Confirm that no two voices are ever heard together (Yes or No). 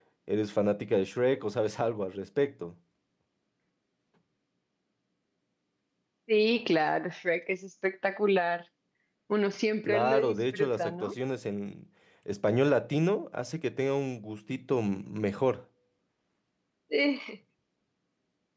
No